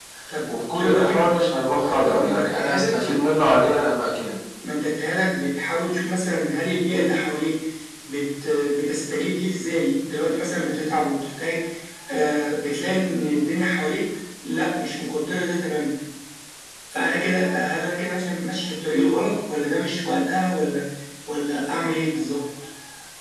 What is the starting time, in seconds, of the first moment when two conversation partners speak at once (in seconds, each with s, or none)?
0.7 s